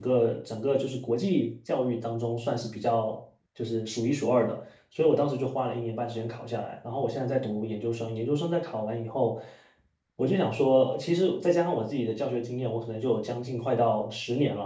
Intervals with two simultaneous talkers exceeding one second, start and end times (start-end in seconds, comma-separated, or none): none